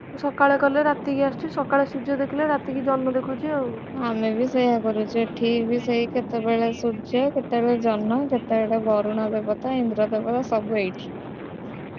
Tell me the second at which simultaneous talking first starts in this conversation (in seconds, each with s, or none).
none